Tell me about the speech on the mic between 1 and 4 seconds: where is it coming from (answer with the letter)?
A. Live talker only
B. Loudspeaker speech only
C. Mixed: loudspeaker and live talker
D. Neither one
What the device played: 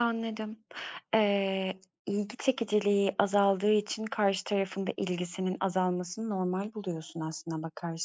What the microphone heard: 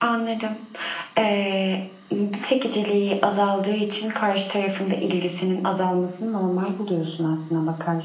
B